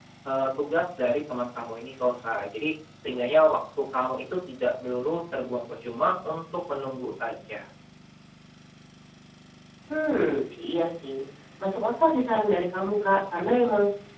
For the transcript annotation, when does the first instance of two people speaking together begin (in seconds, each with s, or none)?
none